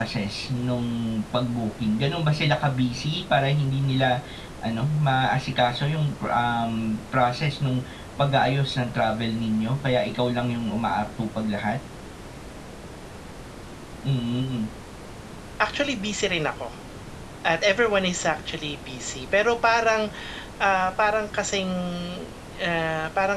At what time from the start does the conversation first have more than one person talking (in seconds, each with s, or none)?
none